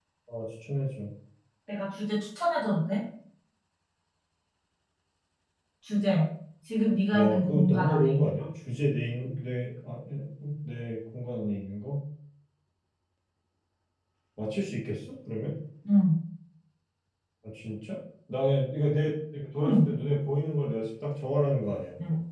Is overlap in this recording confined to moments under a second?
No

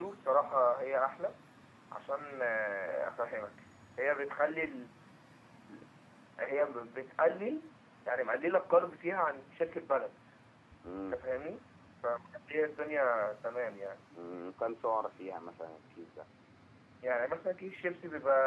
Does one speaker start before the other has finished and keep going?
No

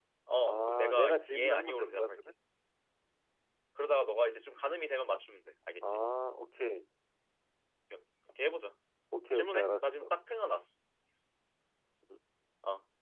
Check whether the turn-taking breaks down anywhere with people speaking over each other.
Yes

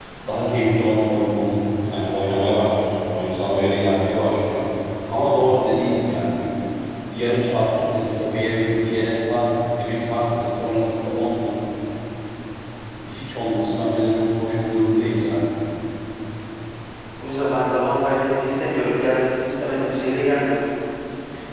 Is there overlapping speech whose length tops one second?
No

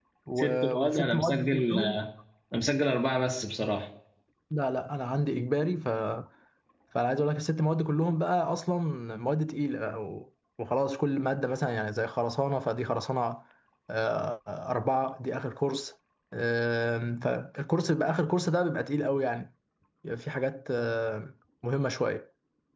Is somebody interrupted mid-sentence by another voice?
Yes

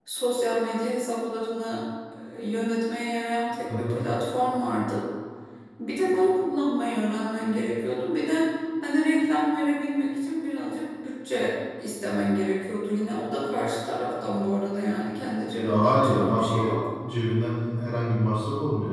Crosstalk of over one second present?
Yes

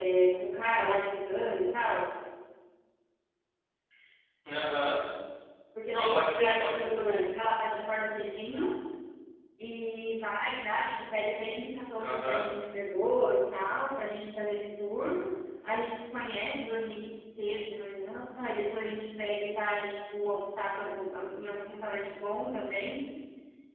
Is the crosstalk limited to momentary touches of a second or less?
No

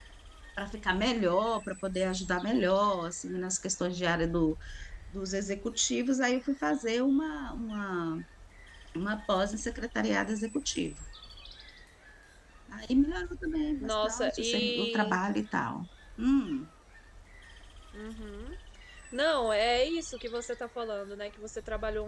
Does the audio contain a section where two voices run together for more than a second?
Yes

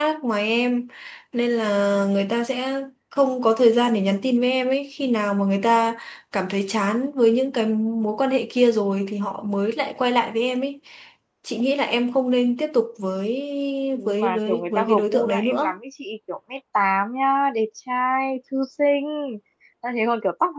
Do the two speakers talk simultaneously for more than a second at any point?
Yes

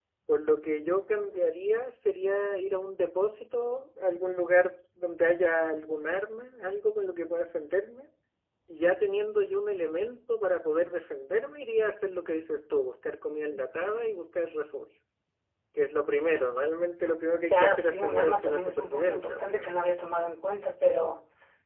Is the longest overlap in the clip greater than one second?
Yes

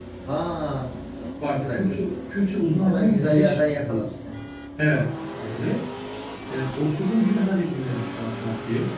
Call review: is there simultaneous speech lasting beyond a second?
Yes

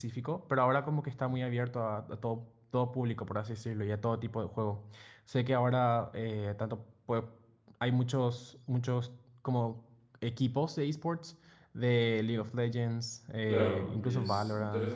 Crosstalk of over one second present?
Yes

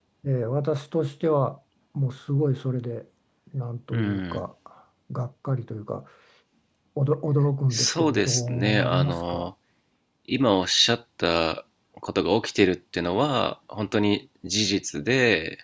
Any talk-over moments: Yes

